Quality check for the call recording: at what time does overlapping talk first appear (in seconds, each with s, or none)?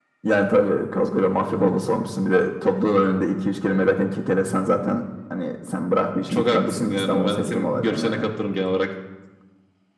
6.2 s